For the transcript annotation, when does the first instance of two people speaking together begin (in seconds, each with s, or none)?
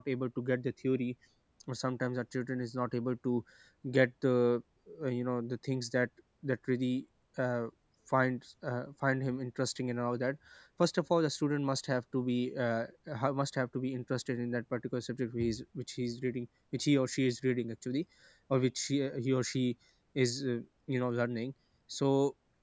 none